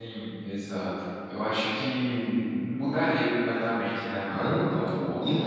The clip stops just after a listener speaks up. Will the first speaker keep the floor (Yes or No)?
No